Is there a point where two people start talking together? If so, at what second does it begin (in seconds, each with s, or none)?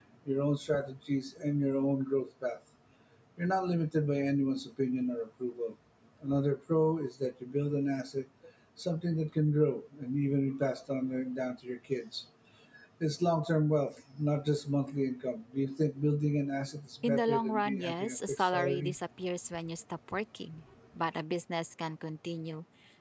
17.0 s